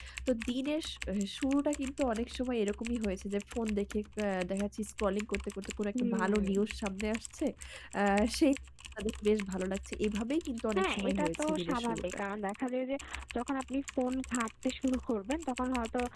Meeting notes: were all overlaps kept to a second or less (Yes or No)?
No